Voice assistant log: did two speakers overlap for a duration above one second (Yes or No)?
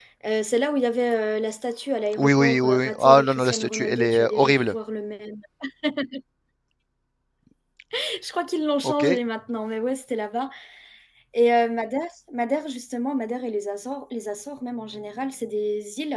Yes